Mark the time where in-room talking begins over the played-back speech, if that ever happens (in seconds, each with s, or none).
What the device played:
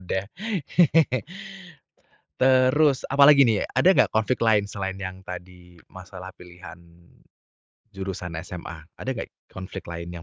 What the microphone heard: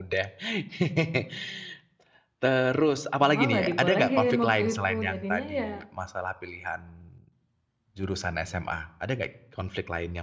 3.2 s